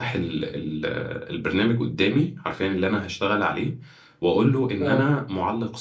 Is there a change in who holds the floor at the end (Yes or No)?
No